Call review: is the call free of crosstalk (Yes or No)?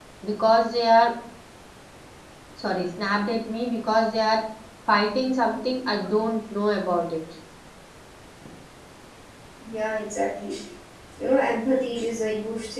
Yes